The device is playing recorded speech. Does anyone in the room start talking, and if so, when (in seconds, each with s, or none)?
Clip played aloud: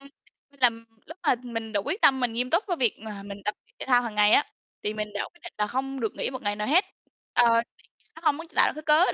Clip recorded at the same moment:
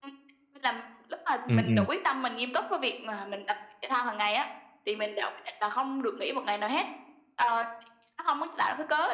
1.5 s